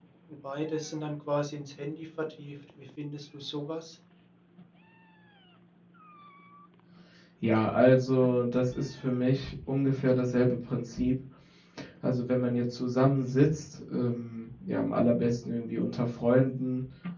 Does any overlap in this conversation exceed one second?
No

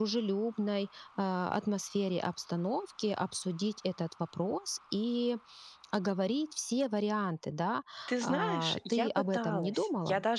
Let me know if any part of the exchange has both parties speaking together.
Yes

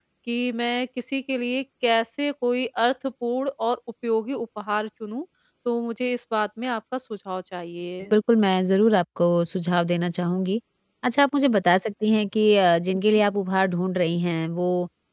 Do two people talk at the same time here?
No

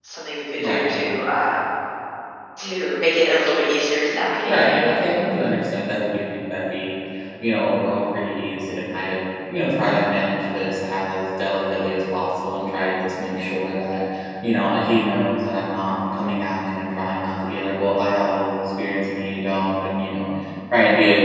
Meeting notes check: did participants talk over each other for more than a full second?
No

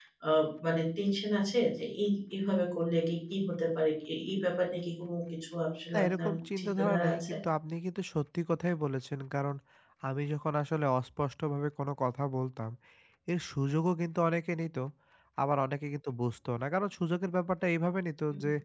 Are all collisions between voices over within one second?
No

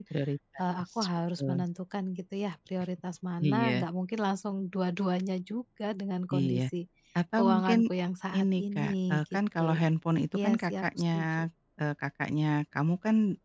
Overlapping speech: Yes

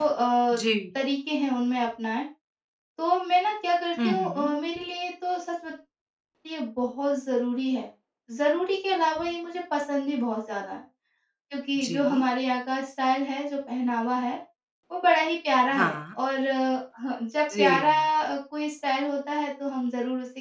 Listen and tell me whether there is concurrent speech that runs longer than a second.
No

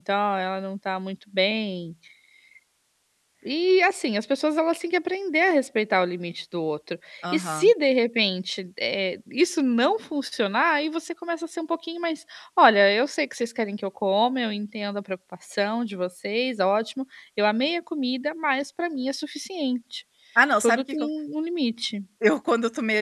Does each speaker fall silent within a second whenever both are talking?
Yes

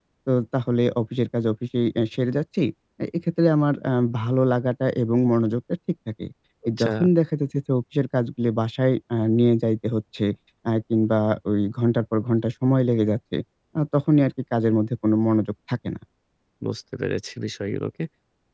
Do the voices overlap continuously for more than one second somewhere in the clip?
No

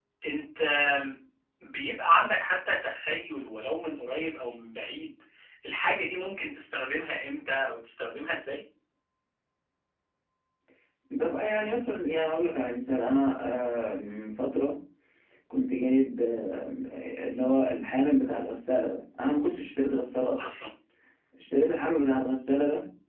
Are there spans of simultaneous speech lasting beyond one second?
No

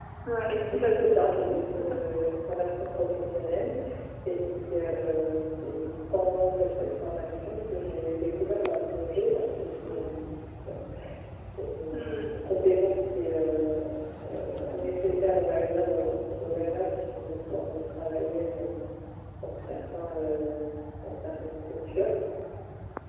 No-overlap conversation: No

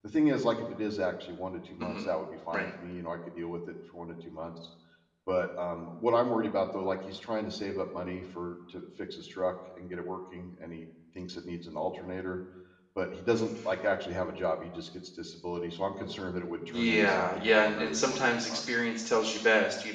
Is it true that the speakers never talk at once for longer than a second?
No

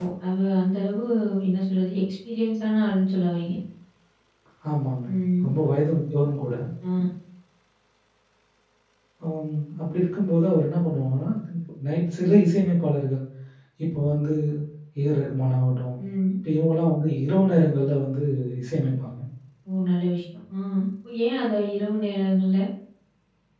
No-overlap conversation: Yes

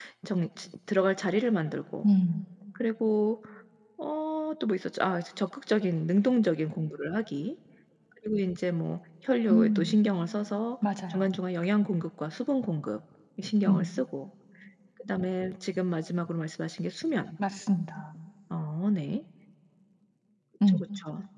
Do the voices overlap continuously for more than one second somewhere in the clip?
No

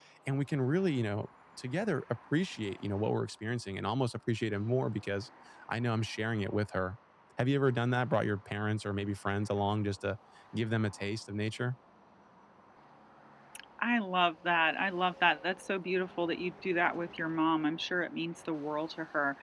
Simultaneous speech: No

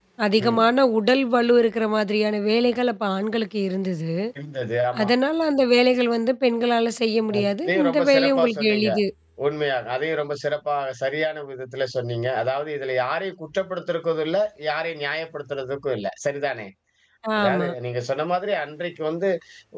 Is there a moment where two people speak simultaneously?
Yes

